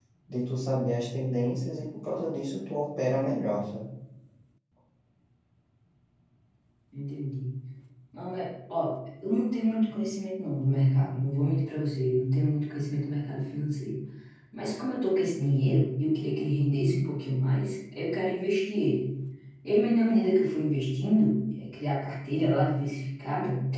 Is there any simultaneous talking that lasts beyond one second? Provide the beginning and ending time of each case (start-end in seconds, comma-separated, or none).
none